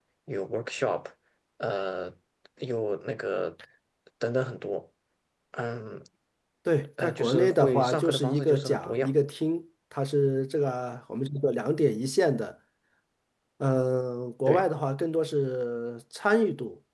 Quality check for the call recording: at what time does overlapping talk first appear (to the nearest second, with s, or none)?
7 s